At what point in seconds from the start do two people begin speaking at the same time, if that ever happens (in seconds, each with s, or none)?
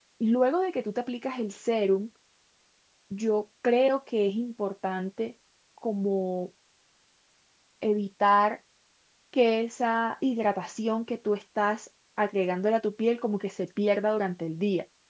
none